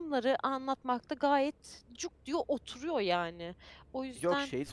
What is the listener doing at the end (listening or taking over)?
taking over